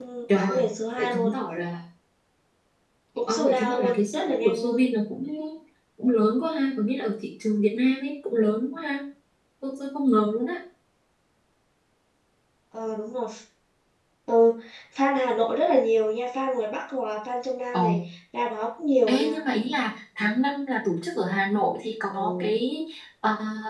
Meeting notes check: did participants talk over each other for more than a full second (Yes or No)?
Yes